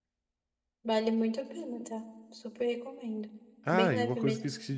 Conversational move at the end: taking over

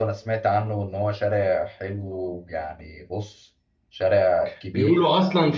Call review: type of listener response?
taking over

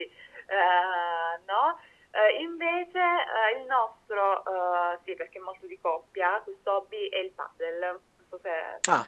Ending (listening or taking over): taking over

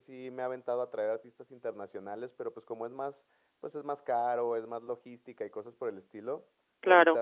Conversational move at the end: listening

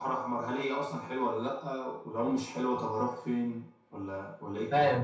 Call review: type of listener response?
taking over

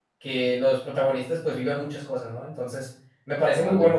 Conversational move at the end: listening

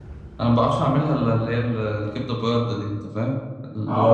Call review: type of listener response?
taking over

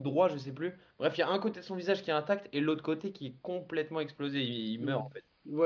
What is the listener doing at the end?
taking over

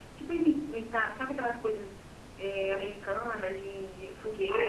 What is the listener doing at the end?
taking over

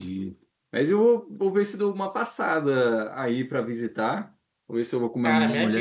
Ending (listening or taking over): taking over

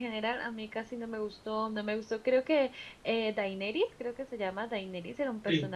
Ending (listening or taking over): listening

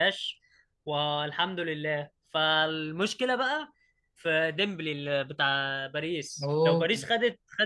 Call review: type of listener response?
listening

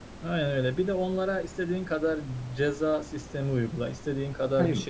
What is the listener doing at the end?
listening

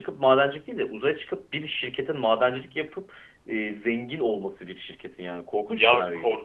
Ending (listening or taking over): taking over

